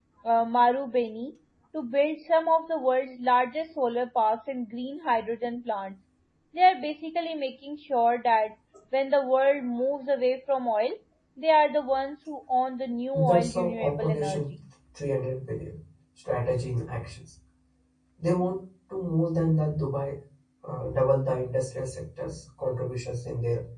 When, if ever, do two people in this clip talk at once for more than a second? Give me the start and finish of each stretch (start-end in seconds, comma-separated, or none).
13.1-14.4